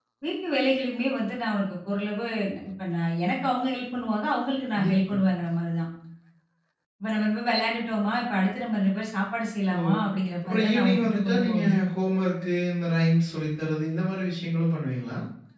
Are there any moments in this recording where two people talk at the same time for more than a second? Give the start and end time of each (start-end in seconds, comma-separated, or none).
10.4-11.8